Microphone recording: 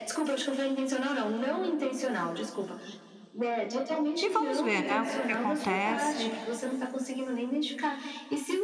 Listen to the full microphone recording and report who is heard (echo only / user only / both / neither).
both